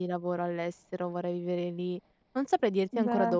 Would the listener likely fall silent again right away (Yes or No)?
Yes